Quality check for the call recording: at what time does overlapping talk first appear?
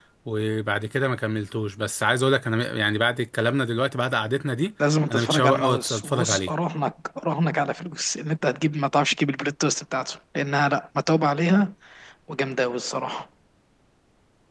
5.1 s

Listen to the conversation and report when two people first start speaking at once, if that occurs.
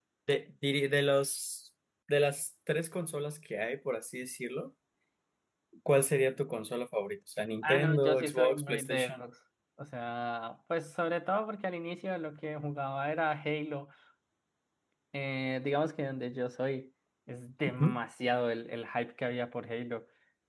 7.6 s

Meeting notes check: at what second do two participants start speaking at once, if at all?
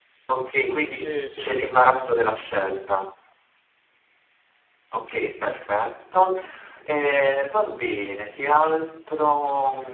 0.9 s

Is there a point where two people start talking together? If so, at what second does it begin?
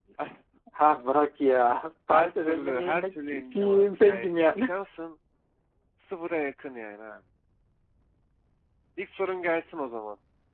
2.1 s

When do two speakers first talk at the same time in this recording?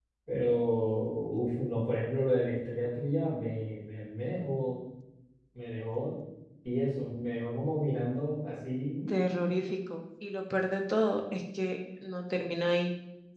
none

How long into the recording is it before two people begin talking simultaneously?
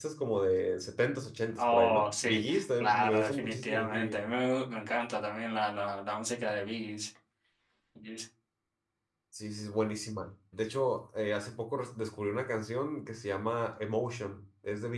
1.6 s

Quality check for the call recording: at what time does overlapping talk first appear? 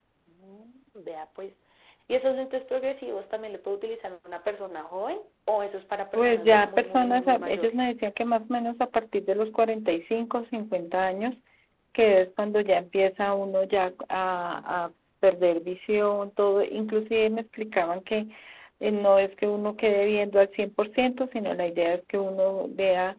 6.2 s

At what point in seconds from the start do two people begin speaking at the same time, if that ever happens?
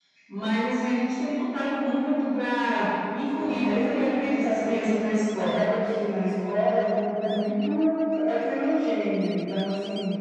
3.3 s

